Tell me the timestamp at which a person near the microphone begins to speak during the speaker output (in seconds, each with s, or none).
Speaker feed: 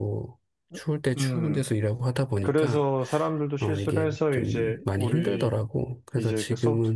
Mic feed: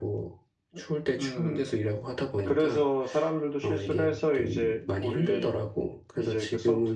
none